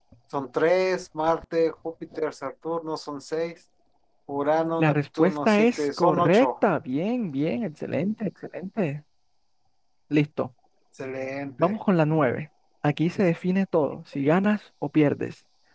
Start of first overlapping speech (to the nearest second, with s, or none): 5 s